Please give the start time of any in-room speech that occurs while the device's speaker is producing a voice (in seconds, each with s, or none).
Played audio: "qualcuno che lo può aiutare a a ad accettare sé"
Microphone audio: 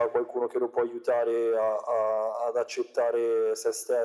none